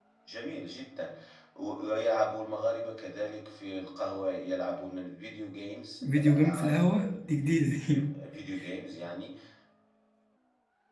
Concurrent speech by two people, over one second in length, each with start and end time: 6.2-8.0

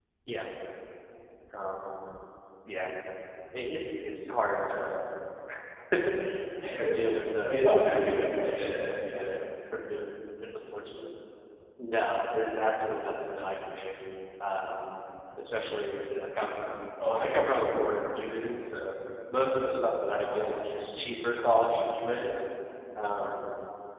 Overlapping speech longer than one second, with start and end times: 7.5-9.2

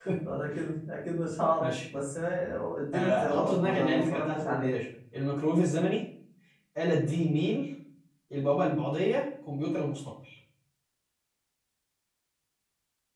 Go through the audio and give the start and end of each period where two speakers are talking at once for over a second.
2.9-4.7

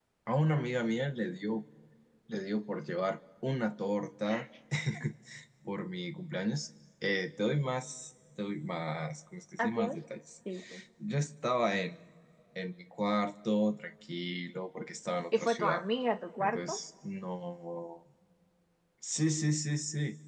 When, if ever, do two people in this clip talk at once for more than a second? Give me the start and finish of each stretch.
none

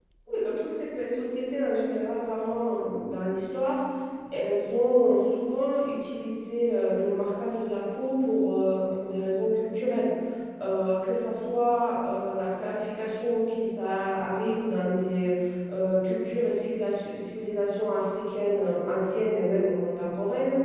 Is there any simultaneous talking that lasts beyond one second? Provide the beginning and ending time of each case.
none

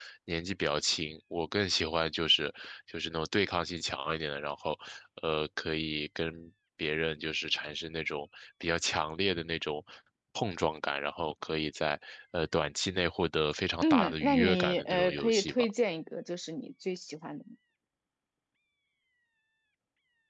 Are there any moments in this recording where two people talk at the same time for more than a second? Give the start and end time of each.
13.8-15.7

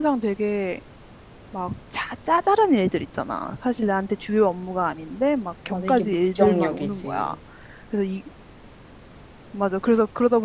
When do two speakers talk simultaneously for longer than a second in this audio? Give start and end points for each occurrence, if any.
5.7-7.3

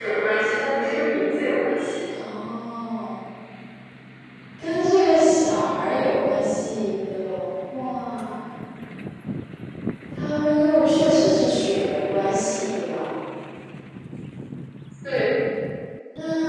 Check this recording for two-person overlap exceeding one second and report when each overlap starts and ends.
none

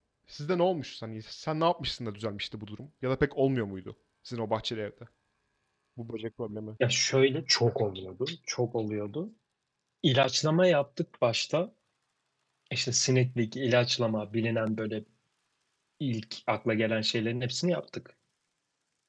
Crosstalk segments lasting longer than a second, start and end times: none

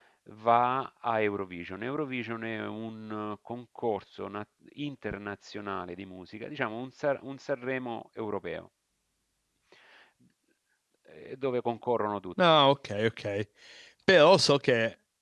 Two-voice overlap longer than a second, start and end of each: none

